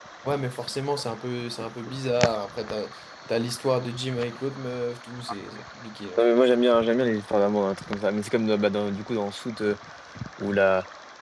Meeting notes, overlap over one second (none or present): none